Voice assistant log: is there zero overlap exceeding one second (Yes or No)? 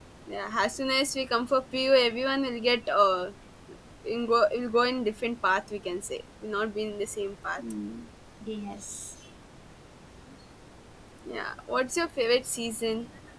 Yes